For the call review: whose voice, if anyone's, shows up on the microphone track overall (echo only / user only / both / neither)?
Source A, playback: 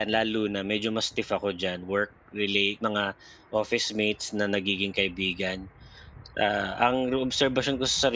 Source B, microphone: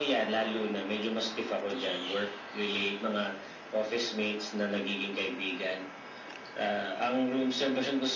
echo only